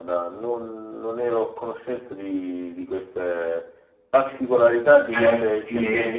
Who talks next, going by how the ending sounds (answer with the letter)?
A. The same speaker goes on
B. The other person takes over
B